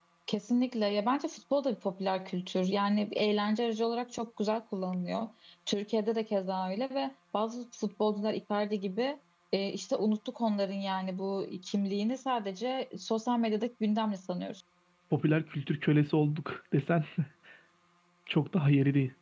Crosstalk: none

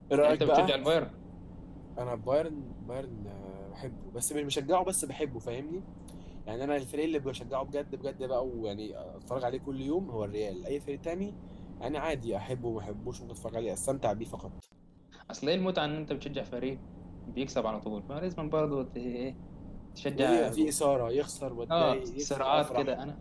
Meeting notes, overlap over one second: present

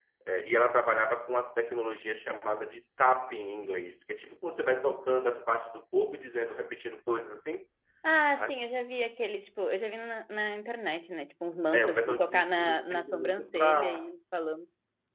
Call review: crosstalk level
present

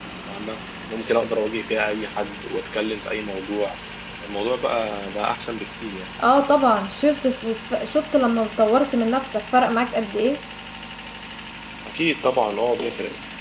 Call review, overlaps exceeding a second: none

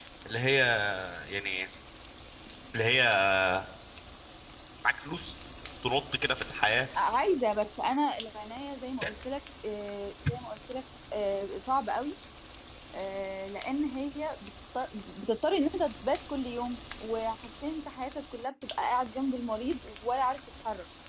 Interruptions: none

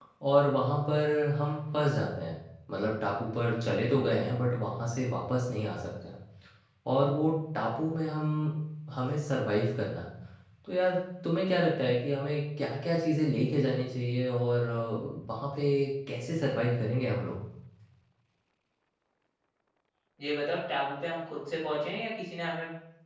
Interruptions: none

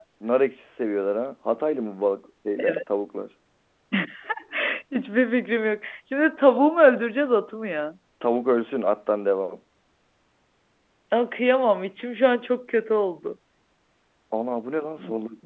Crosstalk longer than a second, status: none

